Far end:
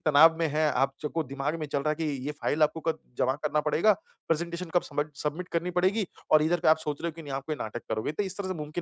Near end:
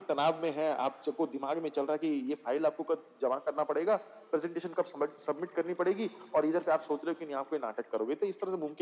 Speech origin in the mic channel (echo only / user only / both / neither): echo only